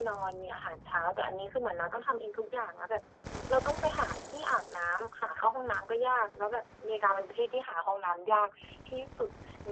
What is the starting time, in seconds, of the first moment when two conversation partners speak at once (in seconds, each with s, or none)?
none